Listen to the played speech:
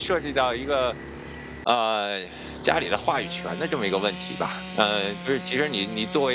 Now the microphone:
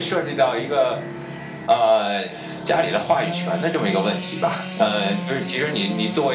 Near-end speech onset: none

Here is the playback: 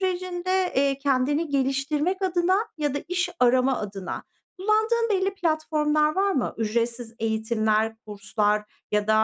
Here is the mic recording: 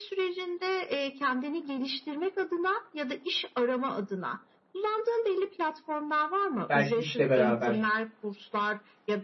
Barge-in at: 6.7 s

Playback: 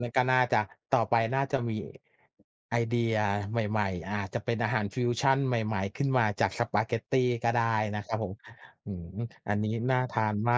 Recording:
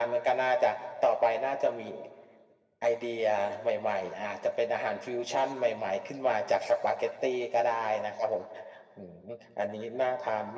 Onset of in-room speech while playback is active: none

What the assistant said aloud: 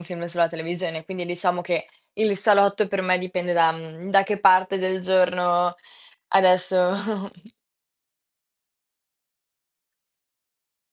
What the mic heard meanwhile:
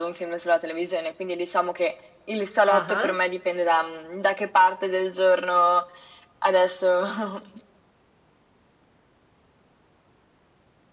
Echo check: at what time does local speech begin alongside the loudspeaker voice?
2.7 s

